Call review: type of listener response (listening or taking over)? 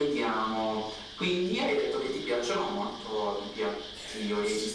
taking over